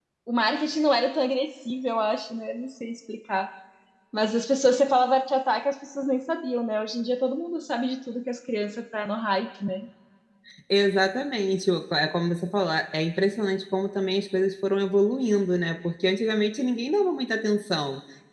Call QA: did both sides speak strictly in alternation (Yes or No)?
Yes